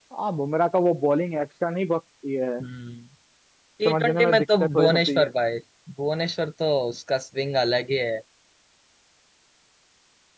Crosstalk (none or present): present